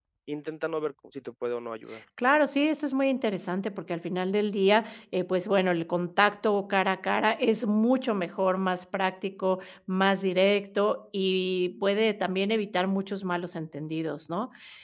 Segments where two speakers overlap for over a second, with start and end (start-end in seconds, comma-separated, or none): none